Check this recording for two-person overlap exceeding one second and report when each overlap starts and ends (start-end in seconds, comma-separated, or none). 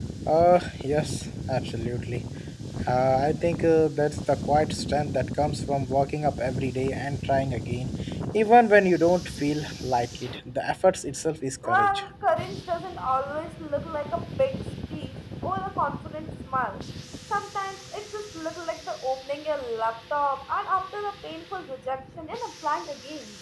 none